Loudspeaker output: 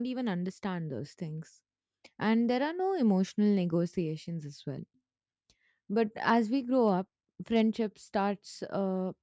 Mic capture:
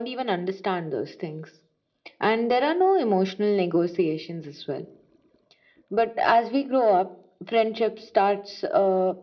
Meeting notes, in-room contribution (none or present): none